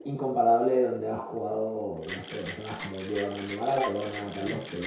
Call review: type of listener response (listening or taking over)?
listening